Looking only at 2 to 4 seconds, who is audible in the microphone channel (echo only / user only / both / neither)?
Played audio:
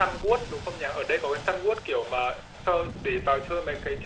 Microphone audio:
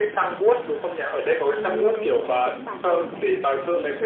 both